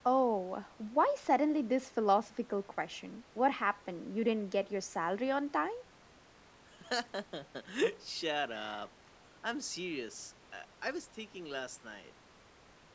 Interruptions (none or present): none